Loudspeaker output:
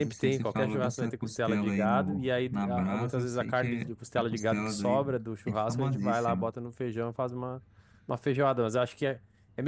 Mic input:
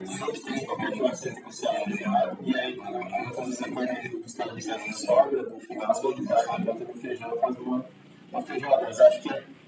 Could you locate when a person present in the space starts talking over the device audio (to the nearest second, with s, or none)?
none